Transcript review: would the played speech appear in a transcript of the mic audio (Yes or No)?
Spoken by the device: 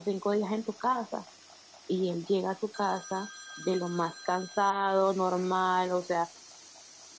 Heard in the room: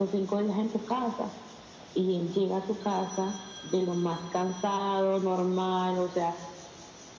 Yes